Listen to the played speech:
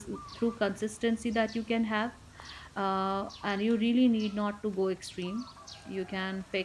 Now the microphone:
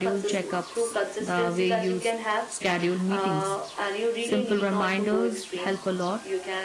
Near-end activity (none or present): present